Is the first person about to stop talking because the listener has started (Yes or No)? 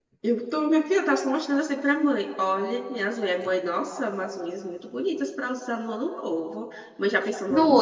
Yes